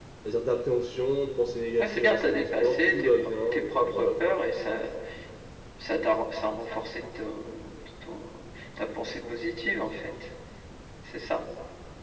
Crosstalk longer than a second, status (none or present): present